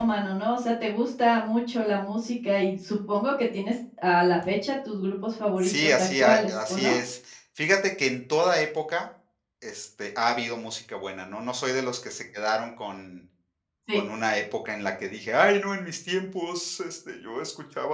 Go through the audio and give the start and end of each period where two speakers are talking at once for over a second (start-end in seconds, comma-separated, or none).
5.6-6.9